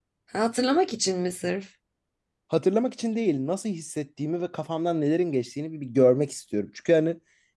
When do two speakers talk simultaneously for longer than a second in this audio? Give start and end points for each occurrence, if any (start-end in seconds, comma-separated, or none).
none